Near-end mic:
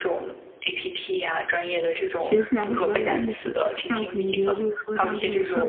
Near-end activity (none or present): present